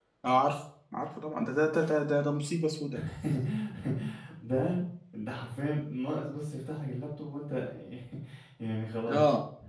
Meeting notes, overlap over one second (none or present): none